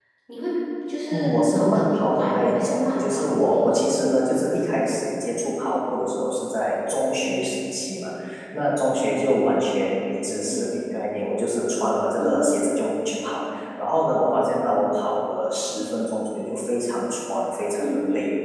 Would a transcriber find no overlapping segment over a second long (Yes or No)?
No